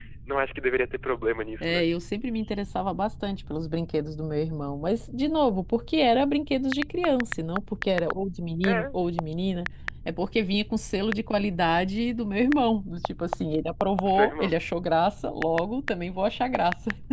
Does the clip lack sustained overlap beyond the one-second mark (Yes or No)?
Yes